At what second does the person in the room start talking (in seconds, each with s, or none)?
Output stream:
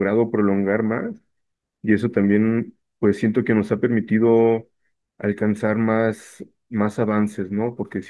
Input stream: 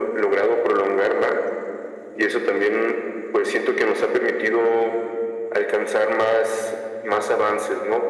none